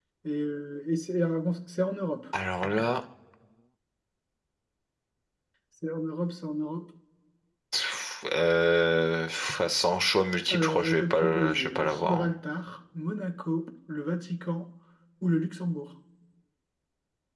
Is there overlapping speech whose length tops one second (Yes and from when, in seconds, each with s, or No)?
Yes, from 10.5 s